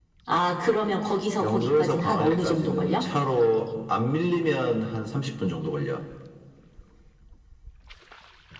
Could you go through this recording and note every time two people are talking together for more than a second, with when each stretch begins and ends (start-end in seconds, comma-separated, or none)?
1.4-3.0